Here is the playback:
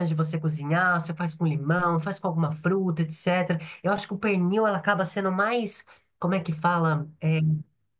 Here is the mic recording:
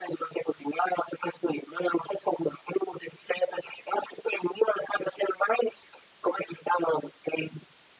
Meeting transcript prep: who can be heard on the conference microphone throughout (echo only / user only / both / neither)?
echo only